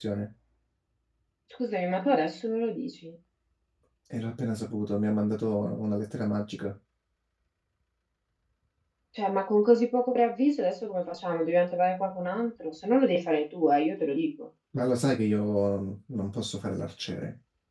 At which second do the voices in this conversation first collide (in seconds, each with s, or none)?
none